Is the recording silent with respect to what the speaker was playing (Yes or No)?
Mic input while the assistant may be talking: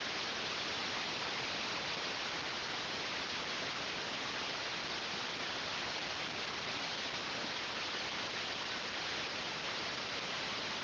Yes